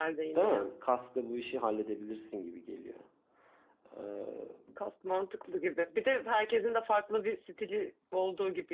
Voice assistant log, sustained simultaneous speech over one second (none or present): none